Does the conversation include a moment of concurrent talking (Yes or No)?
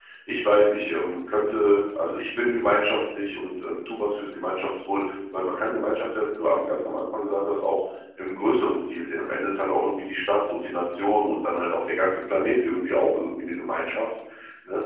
No